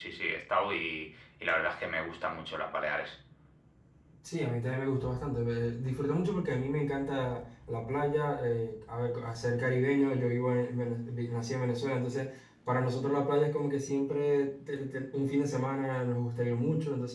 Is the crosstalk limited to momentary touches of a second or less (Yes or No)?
Yes